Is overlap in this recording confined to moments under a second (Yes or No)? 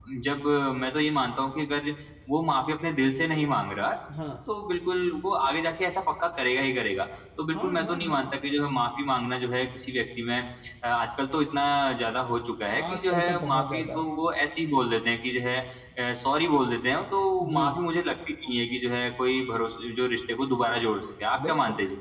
No